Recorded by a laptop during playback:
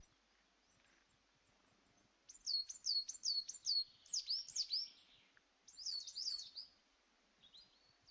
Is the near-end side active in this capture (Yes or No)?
No